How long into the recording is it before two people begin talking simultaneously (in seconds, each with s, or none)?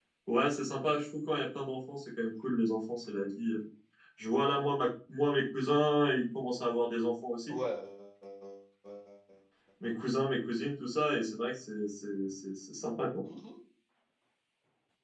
none